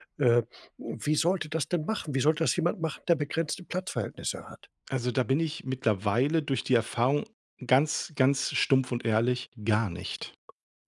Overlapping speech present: No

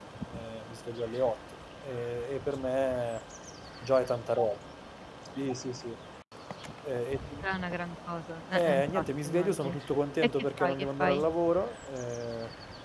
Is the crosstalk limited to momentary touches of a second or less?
No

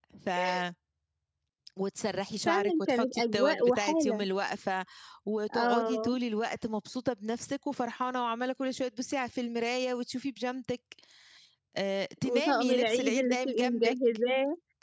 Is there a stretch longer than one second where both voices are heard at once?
Yes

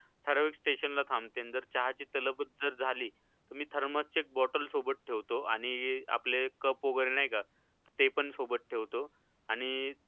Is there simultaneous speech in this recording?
No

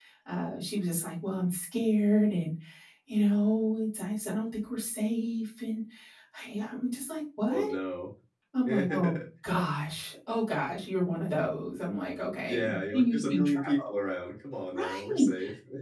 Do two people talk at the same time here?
Yes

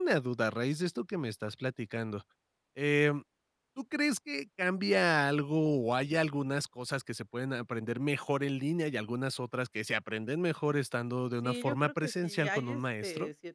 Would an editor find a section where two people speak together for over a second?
Yes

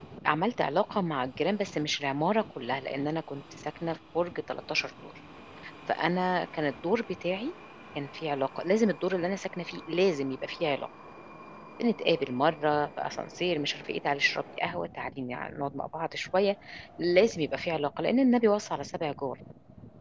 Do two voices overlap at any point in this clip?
No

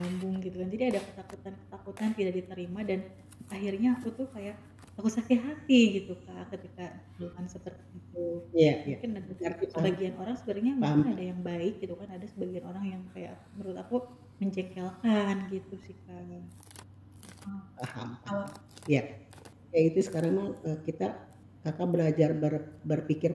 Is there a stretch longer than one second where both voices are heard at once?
No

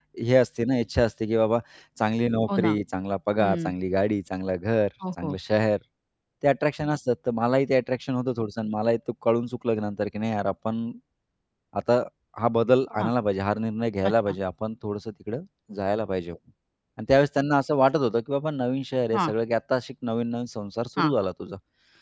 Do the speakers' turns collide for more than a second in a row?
No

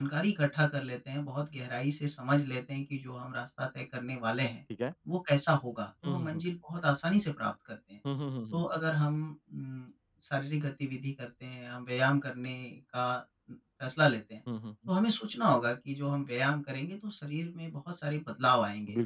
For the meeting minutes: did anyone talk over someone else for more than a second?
No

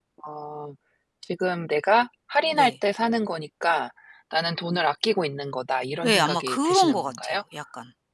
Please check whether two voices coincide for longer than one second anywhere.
Yes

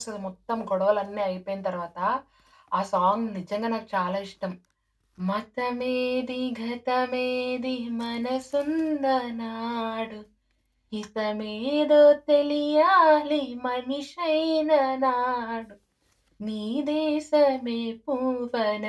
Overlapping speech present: No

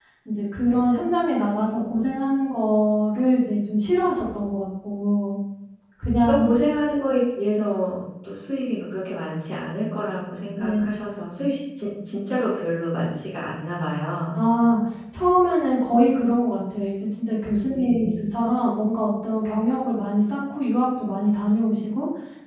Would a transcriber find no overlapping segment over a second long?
Yes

